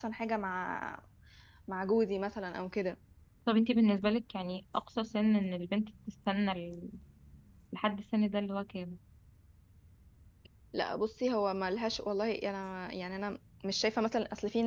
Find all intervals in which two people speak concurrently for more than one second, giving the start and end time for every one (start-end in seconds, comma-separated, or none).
none